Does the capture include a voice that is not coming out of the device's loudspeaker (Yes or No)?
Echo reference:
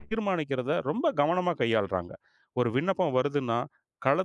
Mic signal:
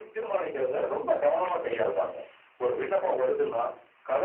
No